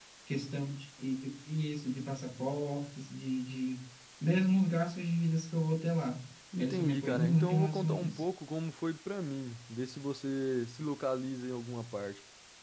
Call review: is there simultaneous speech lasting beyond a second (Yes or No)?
Yes